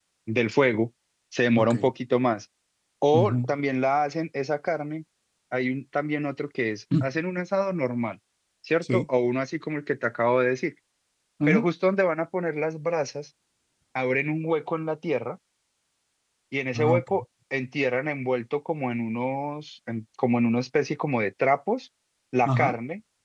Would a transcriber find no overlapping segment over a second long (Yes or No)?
Yes